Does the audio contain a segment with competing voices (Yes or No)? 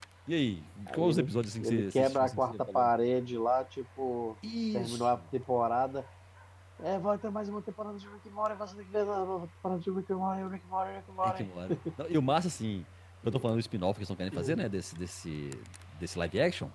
Yes